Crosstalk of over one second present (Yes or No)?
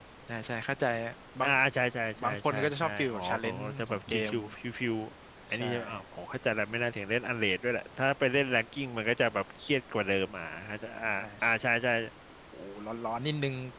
Yes